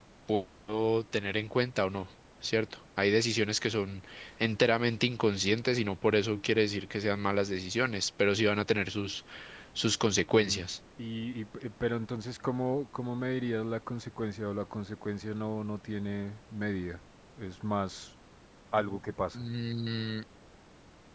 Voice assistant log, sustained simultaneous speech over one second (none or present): none